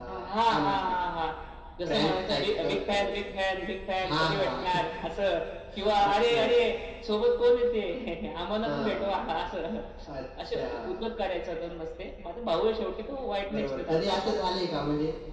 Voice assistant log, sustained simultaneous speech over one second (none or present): present